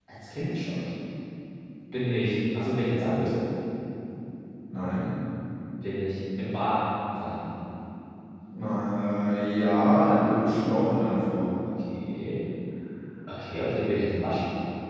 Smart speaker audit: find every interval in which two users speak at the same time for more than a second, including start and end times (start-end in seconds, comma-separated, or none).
none